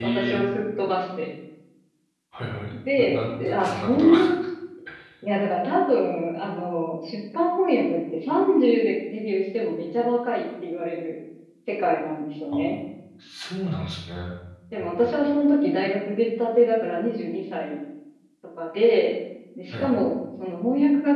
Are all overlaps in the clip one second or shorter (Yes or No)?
No